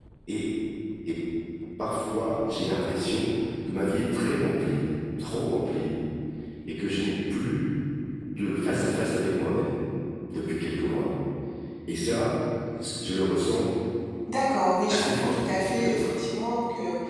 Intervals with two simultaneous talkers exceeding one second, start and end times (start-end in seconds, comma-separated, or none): 14.9-16.1